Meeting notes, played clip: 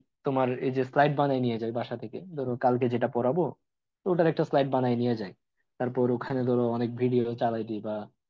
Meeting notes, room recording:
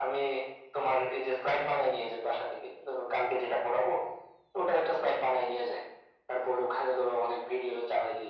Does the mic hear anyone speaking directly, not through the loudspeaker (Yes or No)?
No